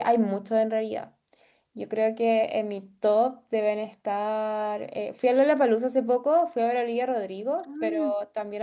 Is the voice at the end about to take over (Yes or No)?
No